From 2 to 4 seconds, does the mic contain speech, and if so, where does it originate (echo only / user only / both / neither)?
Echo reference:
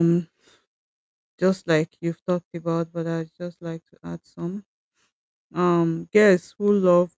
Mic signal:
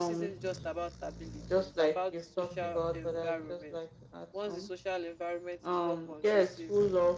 both